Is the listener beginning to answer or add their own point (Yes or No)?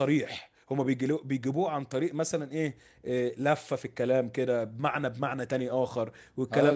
Yes